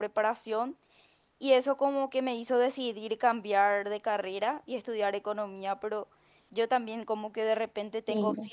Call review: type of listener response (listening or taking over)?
listening